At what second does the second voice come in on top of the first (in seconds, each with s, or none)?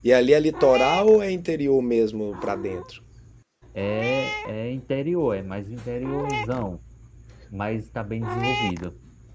none